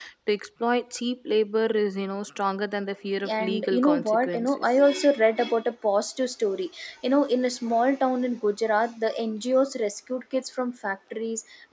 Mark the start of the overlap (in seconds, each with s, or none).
3.2 s